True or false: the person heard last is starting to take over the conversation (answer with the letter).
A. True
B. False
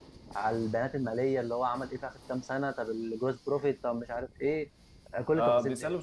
A